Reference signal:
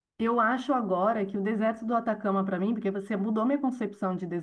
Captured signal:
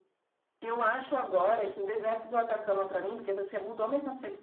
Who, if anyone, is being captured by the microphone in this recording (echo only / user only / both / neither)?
echo only